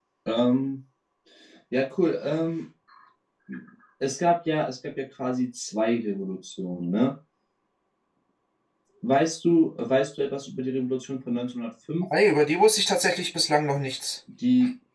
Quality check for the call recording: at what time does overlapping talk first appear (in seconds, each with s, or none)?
none